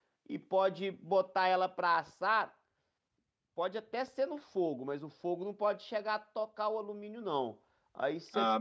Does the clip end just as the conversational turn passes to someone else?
No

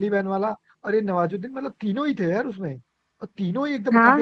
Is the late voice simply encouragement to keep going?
No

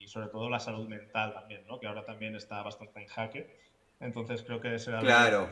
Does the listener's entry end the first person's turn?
No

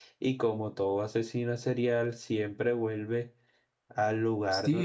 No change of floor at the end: No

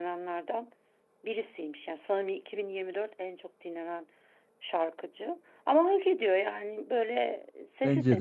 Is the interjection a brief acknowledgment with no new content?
Yes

